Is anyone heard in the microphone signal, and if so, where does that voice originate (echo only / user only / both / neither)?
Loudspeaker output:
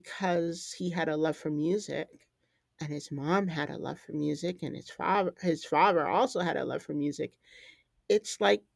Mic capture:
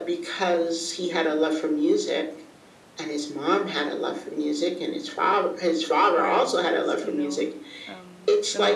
both